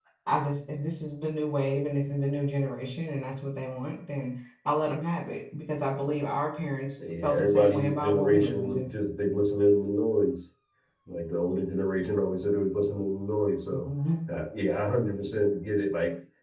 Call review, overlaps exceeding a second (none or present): present